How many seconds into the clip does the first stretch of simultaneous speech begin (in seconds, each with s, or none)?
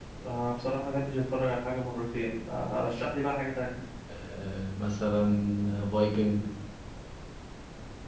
none